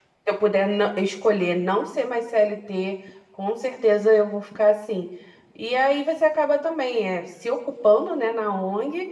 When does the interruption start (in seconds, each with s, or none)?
none